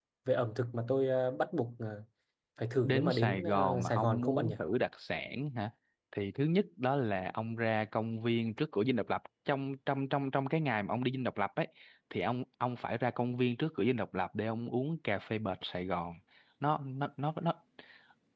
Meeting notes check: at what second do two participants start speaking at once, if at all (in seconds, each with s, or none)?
2.8 s